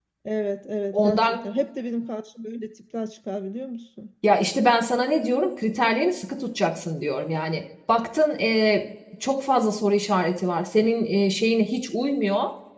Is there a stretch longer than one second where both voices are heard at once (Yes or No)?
No